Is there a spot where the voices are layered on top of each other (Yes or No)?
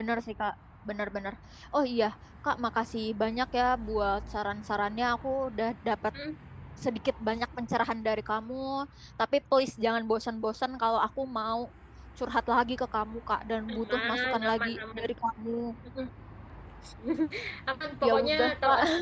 Yes